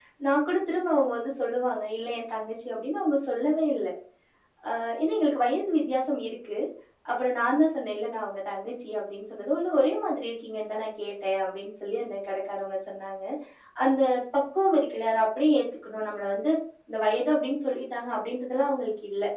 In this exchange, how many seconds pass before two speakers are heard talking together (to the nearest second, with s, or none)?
none